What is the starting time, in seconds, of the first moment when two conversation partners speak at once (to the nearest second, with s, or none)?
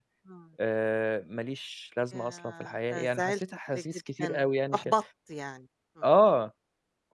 2 s